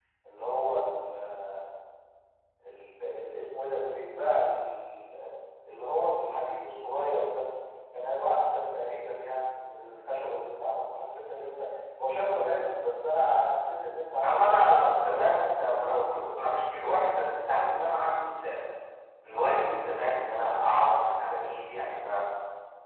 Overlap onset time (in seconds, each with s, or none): 14.2 s